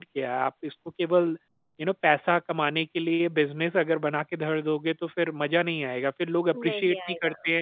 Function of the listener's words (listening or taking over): listening